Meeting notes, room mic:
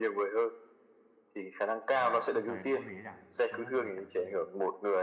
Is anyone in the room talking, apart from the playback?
Yes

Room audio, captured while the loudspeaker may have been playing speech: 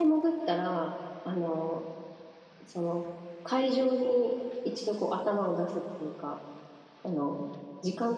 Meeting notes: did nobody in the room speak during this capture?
No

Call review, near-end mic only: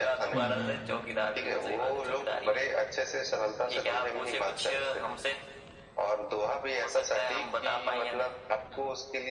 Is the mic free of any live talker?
No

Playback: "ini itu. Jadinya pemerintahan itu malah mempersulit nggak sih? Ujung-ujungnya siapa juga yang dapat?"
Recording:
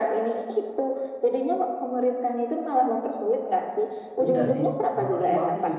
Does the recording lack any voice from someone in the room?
No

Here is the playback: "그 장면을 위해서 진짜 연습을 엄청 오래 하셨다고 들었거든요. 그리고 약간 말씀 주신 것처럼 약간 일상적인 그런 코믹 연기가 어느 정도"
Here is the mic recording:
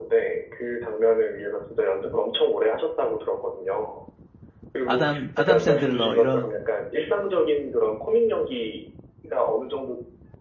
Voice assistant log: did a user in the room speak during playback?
Yes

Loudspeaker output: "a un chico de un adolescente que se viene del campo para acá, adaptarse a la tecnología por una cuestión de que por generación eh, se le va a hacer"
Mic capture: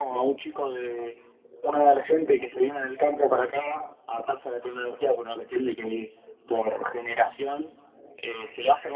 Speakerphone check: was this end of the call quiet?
Yes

